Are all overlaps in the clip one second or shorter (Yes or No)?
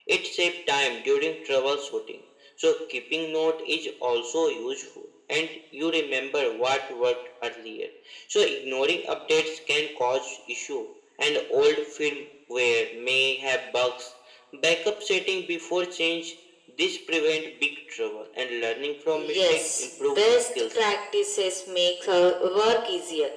No